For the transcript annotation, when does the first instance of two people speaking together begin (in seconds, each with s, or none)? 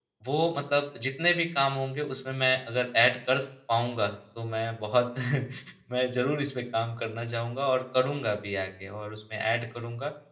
none